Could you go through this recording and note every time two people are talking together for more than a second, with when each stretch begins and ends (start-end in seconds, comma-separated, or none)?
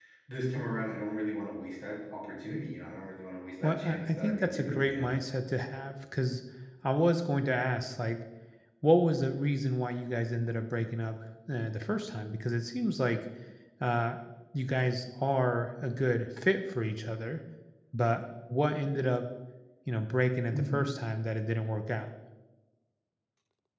3.6-5.2